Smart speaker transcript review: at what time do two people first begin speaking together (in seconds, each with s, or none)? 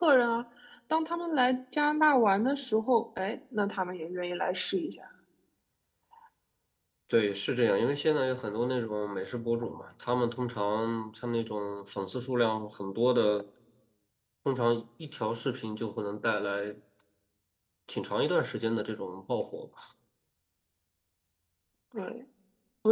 none